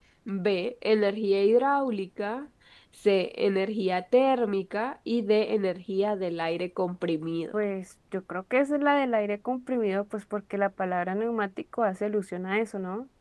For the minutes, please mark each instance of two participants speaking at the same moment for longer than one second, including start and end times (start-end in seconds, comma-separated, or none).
none